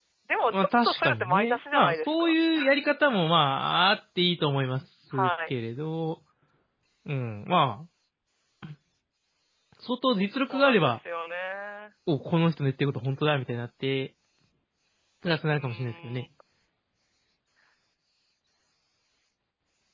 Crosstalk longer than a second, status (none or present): present